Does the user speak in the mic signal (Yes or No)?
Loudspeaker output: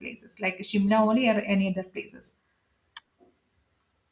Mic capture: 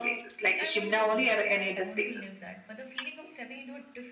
Yes